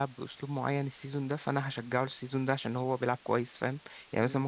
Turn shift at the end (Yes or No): No